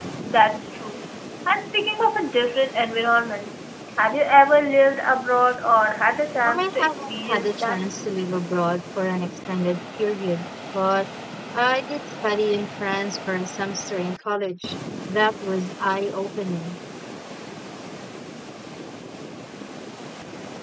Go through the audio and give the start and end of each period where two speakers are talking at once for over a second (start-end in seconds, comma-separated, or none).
6.4-7.8